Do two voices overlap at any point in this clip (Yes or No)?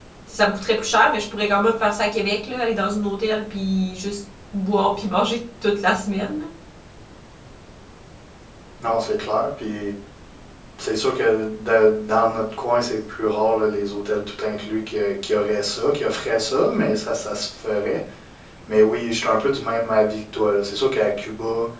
No